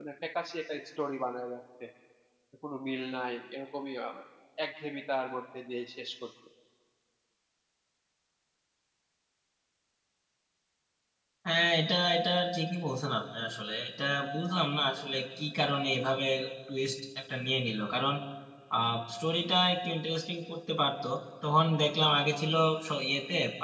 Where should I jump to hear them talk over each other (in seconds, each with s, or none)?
none